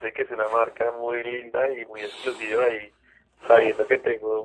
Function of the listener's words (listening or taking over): listening